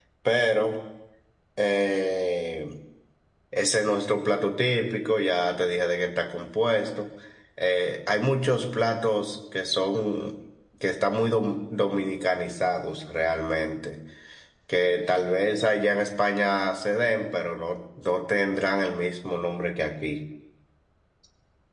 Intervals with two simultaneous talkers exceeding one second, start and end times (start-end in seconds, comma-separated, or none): none